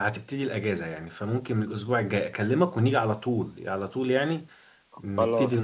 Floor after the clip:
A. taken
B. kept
A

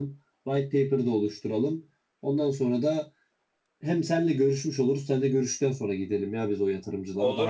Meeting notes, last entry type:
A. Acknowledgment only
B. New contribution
B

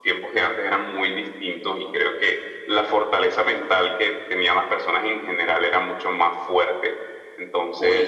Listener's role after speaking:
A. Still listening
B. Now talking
A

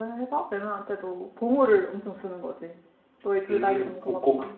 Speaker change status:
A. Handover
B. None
A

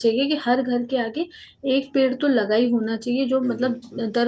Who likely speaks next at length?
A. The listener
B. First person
B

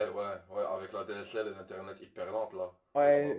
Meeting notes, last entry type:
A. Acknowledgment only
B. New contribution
B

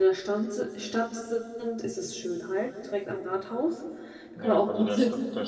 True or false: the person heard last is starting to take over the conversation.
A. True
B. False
A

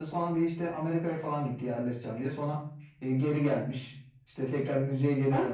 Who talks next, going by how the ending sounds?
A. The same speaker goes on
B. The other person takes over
A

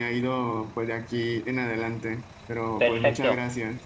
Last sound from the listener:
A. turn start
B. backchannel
A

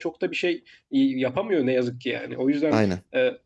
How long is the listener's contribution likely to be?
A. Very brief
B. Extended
A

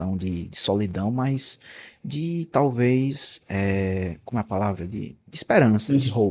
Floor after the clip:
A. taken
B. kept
A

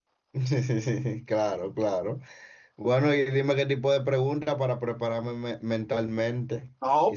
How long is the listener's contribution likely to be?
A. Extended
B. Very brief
A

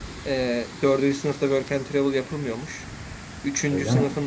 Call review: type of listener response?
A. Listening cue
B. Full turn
A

